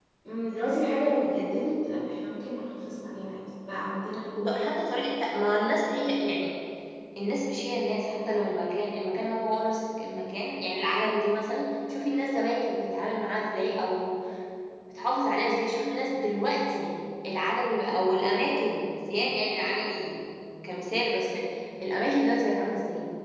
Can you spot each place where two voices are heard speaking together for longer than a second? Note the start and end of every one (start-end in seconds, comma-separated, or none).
none